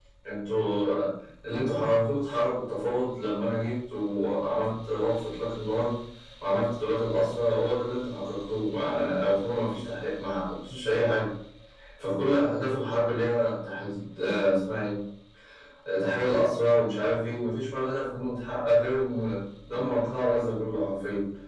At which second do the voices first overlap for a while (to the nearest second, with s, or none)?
none